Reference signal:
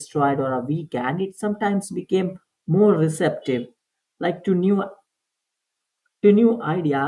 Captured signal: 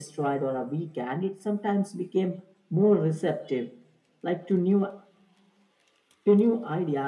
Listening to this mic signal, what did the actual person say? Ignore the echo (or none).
none